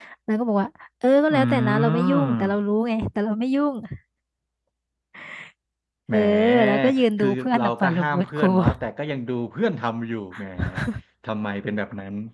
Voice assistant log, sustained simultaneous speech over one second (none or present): present